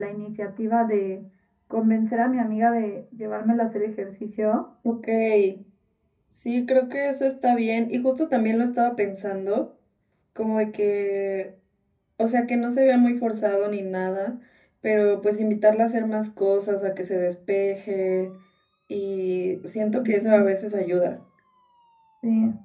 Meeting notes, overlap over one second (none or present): none